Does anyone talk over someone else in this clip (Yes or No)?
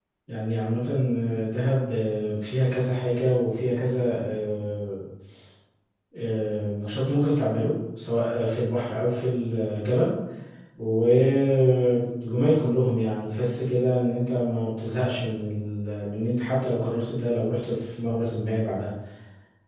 No